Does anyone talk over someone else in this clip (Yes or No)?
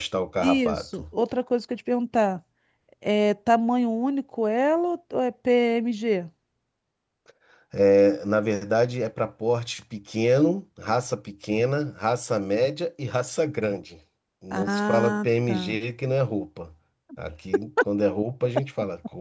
Yes